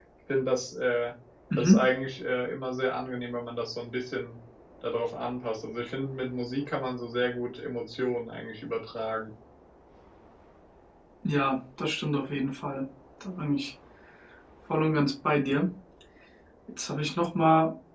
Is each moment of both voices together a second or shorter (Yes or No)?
Yes